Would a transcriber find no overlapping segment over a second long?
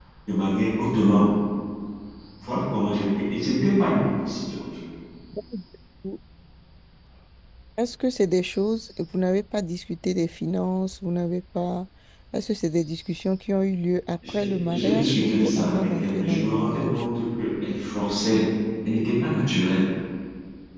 No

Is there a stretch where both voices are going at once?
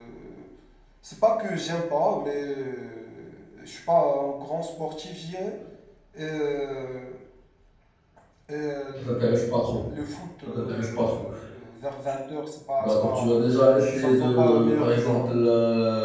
Yes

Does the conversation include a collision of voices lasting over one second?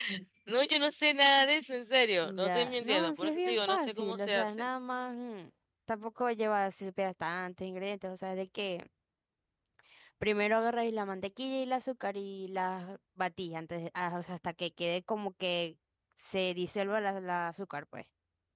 Yes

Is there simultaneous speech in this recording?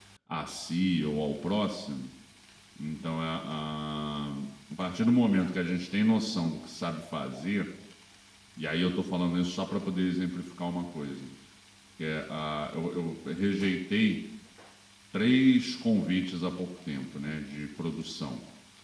No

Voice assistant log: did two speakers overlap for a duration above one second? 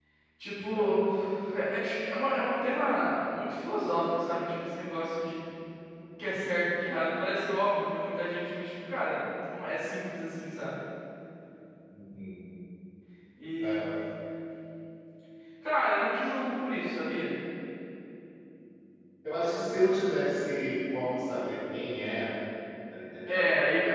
No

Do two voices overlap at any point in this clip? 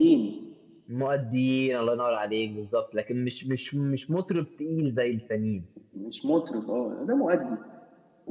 No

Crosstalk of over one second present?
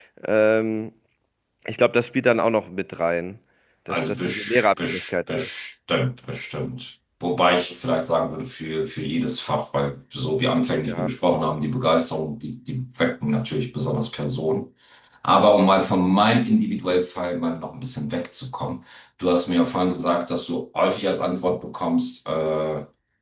Yes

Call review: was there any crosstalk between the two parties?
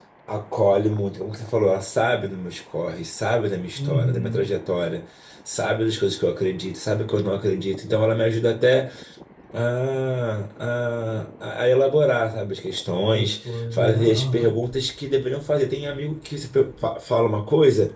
Yes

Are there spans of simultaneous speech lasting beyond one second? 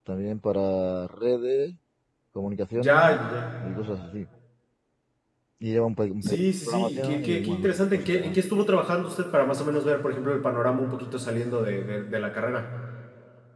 Yes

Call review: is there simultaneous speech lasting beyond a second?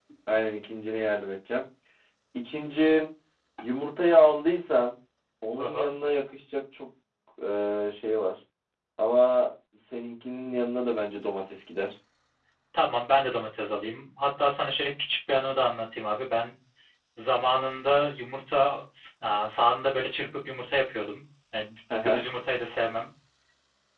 No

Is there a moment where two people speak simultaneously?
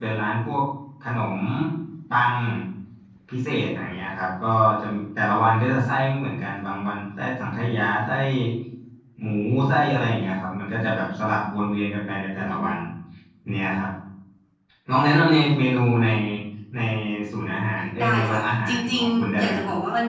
Yes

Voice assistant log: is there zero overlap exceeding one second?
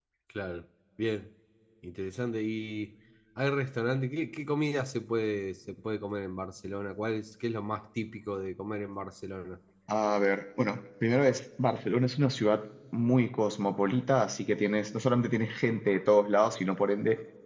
Yes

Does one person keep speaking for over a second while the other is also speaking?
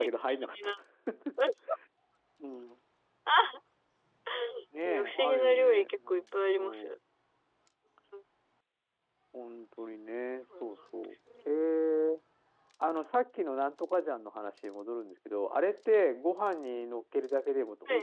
Yes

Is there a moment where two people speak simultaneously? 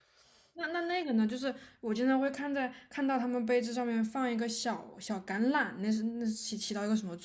No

